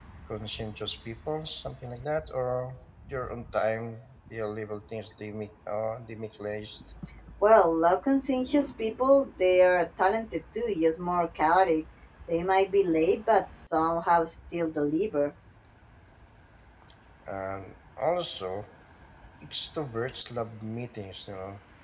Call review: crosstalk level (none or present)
none